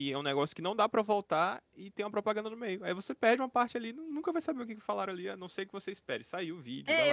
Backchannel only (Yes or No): No